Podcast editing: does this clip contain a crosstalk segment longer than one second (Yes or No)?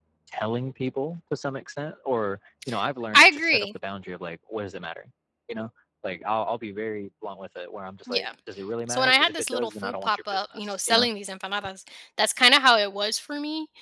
Yes